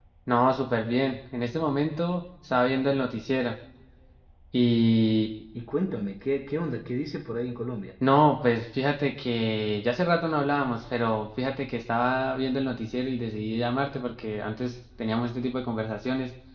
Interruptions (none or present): none